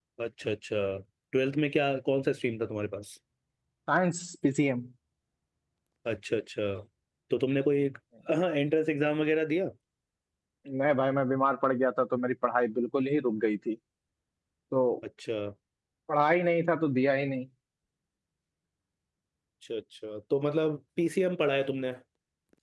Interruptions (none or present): none